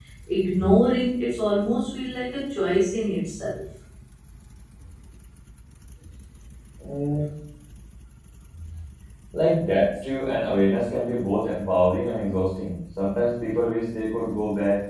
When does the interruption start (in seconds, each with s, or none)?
none